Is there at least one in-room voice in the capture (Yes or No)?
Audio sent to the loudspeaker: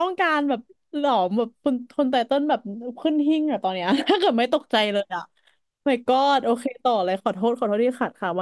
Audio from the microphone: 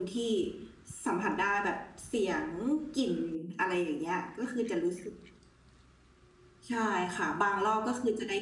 Yes